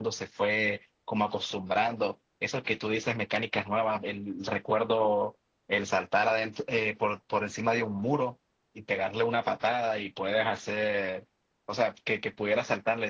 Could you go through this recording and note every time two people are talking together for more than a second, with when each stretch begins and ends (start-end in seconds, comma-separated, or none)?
none